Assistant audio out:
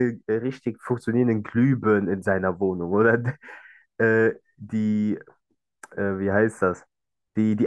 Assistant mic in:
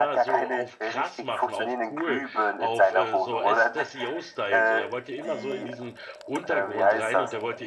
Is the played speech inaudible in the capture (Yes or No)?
No